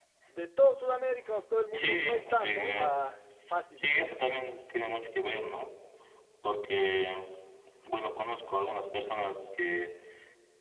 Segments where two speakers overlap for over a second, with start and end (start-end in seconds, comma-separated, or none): 1.7-3.0